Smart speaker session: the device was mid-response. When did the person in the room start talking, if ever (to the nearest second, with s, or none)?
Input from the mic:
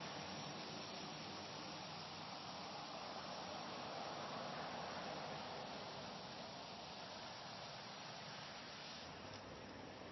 none